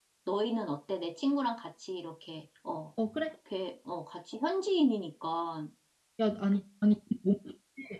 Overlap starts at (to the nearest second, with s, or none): none